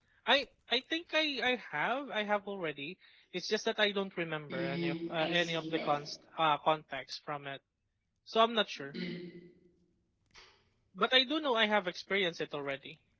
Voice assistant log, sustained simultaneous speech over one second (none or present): present